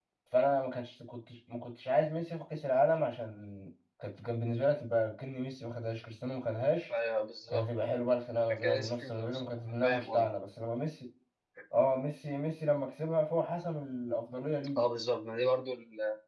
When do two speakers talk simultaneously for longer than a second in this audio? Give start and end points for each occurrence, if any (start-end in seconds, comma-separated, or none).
8.5-10.3